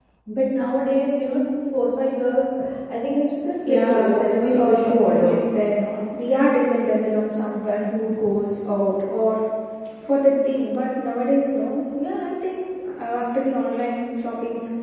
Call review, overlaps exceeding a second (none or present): present